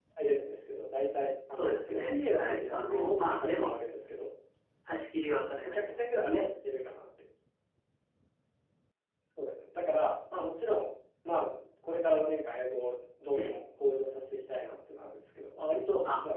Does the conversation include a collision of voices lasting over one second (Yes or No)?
Yes